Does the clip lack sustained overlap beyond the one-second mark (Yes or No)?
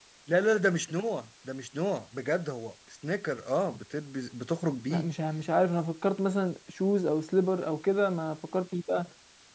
Yes